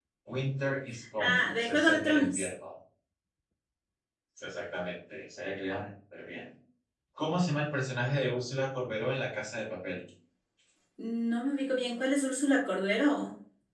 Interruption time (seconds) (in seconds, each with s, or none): 1.2 s